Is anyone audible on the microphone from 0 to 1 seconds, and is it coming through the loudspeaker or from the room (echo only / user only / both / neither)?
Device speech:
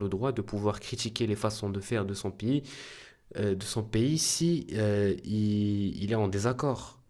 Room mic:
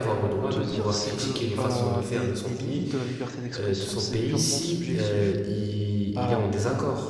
both